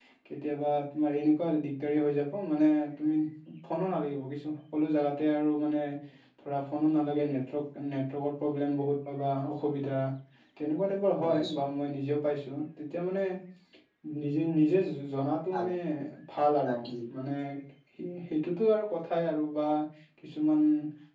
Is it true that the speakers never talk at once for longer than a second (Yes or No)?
Yes